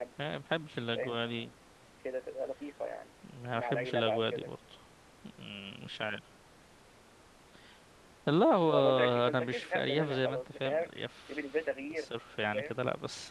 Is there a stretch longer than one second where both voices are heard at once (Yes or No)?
Yes